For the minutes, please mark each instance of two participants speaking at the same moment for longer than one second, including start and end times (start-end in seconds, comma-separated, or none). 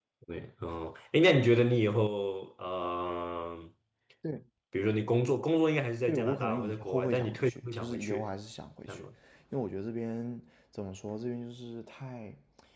6.0-8.3